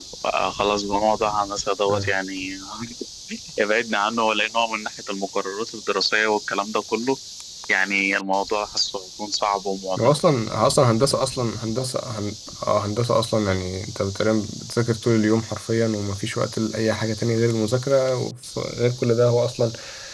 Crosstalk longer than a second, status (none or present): none